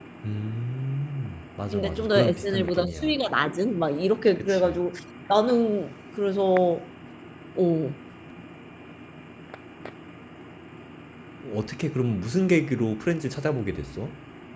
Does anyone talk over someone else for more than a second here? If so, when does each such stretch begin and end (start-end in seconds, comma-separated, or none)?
1.7-3.2